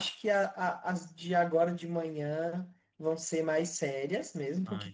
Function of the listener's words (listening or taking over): listening